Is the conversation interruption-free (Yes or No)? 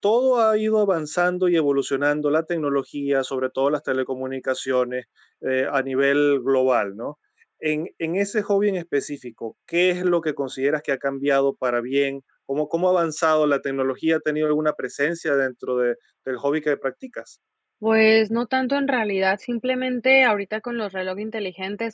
Yes